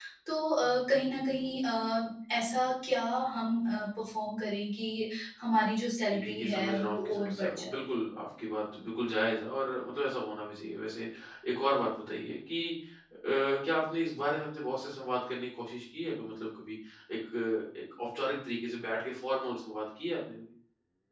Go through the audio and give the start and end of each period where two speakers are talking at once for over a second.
6.1-7.8

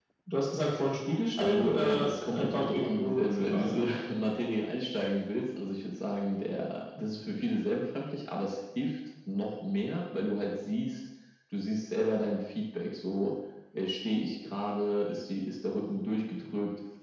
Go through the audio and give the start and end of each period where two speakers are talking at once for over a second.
1.4-3.7

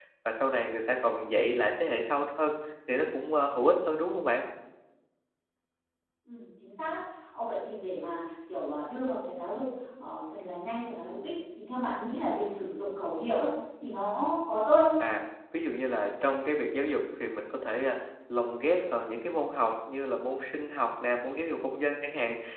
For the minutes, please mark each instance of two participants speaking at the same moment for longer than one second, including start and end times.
none

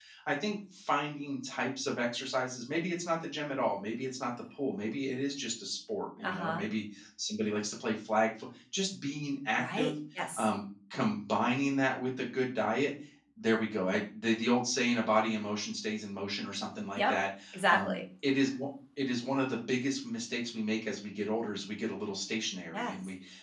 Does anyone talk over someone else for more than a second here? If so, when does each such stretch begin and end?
none

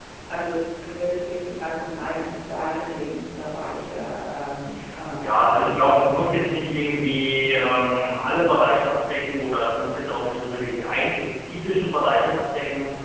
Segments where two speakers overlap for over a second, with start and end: 5.2-6.7

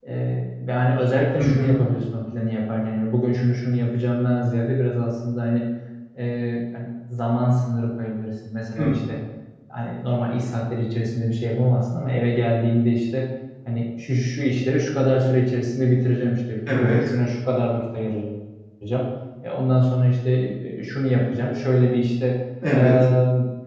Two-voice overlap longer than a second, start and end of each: none

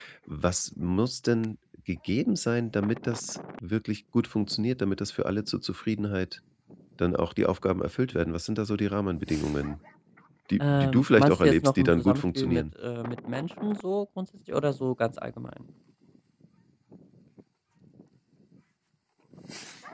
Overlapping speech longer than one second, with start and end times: 10.6-12.6

